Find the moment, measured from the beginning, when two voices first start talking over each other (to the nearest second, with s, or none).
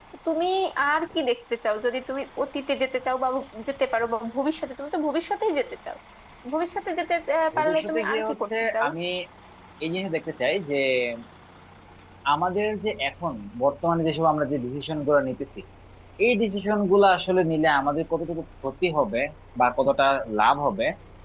8 s